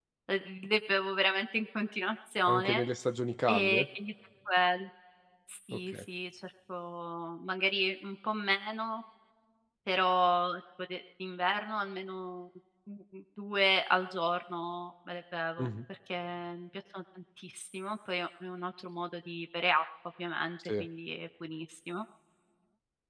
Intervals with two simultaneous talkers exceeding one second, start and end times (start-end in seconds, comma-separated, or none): none